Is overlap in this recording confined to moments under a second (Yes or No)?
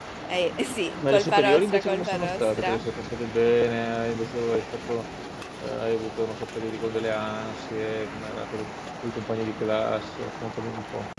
No